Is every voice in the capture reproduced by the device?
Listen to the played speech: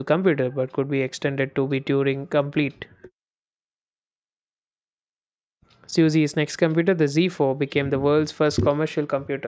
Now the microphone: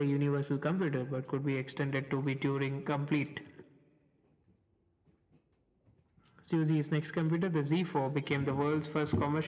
Yes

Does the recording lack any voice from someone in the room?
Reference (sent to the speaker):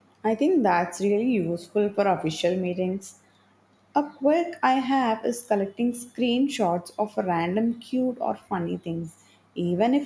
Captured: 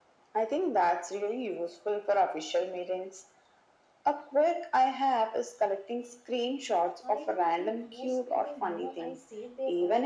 No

